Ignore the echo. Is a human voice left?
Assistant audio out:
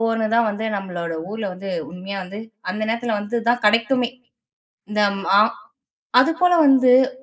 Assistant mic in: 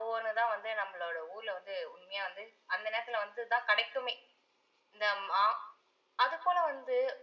No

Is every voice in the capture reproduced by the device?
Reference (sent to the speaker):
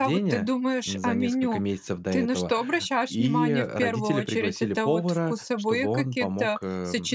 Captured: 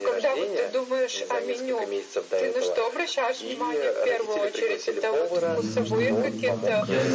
No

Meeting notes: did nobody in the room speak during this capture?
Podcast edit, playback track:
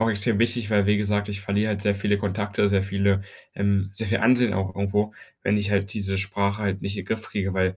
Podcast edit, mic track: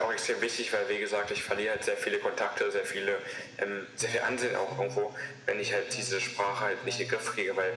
No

